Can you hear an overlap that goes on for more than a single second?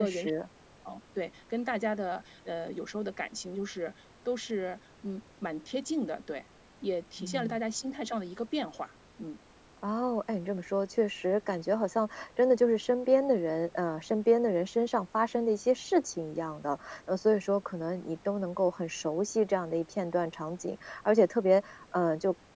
No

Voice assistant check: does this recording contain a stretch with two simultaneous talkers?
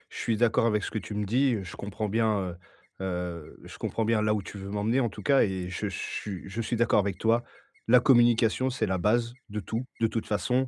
No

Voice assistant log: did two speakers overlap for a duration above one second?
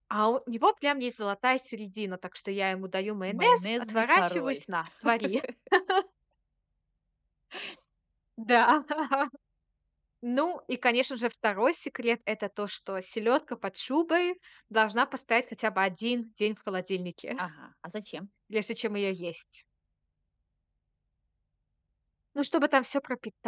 Yes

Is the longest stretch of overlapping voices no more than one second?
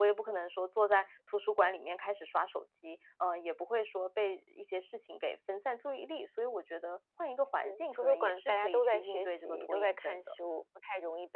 No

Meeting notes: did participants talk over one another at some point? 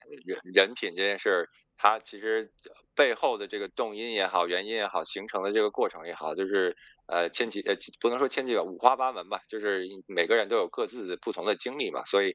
No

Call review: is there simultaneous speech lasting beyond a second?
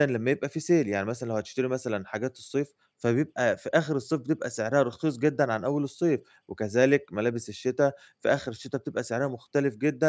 No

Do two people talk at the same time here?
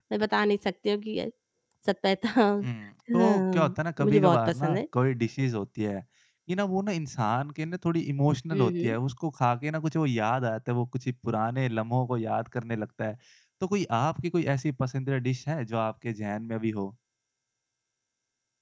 Yes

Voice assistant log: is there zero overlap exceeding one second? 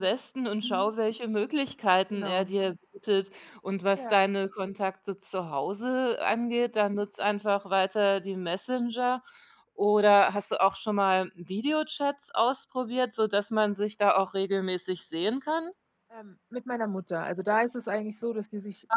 Yes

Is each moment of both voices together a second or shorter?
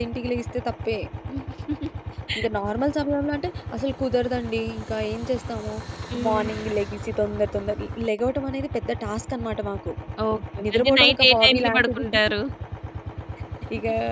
No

